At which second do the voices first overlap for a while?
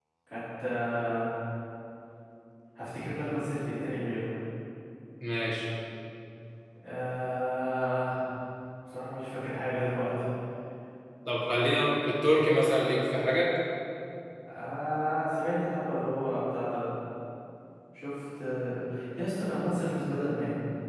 none

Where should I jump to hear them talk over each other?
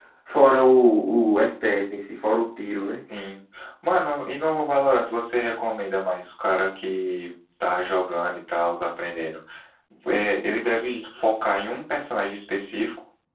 none

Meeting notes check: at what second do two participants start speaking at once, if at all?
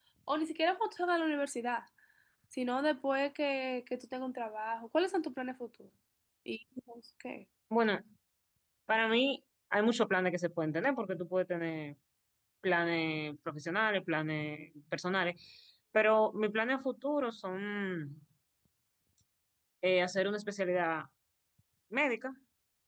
none

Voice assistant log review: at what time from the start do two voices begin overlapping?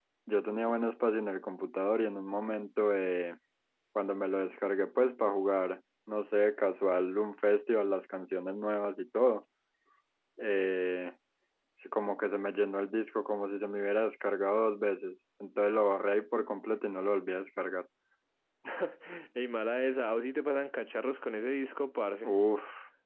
none

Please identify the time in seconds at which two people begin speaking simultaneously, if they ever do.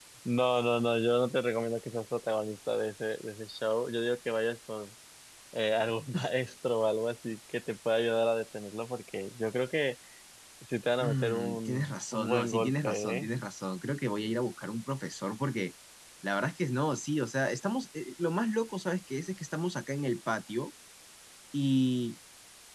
11 s

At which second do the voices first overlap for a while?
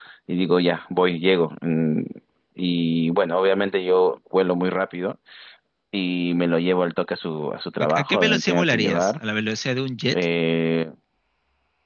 8 s

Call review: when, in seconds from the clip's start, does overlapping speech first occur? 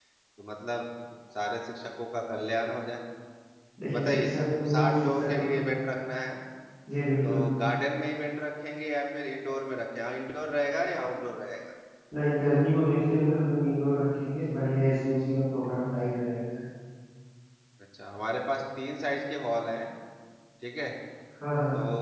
4 s

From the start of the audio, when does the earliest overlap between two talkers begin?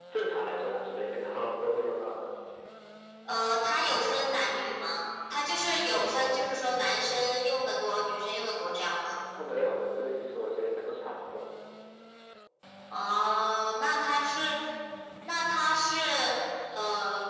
none

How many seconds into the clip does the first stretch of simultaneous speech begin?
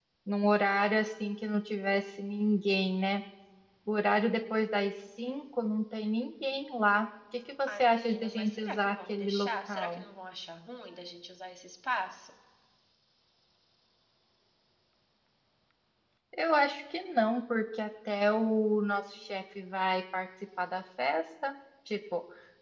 8 s

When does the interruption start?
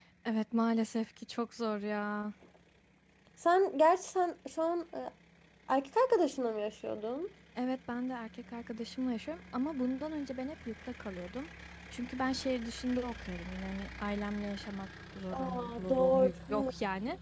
15 s

